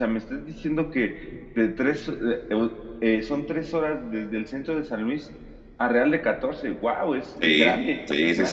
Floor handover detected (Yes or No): Yes